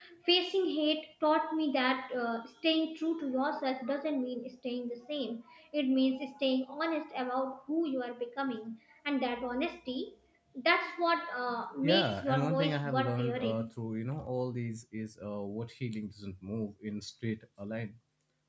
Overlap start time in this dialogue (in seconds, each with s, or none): 11.8 s